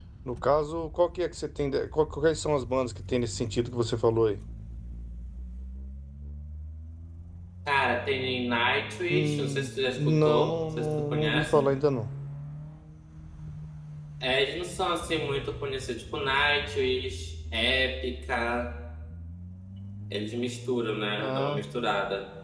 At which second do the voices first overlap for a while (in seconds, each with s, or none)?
9.1 s